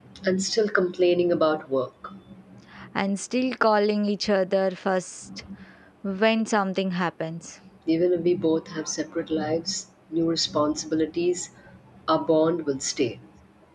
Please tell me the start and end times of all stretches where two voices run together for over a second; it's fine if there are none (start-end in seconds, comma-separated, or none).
none